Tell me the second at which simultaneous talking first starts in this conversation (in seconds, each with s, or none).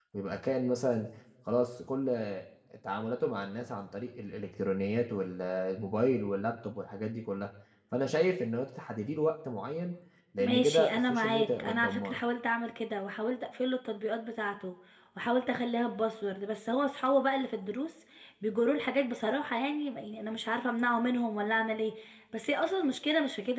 10.4 s